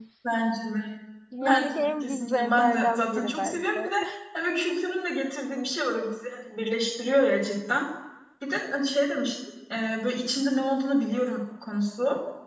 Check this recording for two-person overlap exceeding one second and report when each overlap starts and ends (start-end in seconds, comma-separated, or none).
1.4-3.9